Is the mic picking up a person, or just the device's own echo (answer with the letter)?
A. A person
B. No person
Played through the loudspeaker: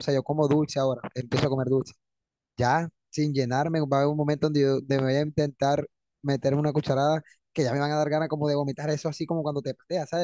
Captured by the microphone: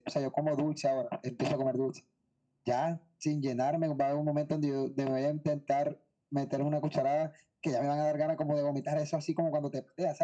B